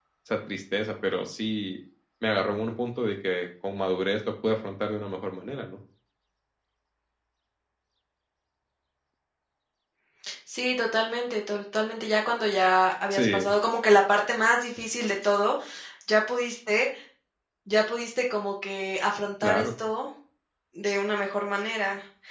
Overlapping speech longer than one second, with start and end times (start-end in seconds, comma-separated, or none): none